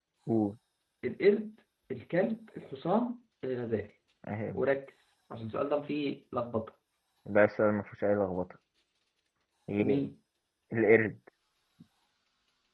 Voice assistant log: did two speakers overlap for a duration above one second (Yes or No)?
No